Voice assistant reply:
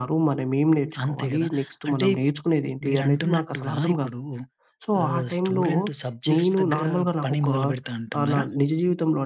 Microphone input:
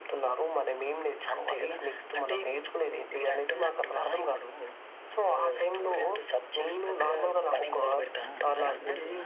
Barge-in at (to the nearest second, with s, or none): 8 s